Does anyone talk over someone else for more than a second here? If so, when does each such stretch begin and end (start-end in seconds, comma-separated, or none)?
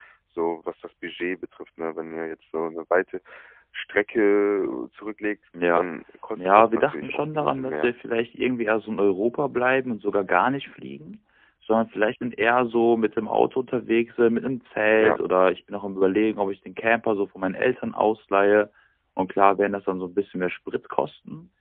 6.4-7.9